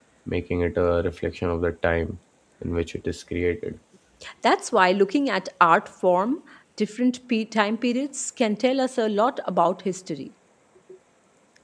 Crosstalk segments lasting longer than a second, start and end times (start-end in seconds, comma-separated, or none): none